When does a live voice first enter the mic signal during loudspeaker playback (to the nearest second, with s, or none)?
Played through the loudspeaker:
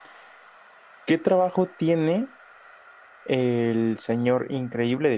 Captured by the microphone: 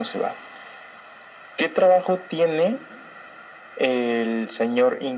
none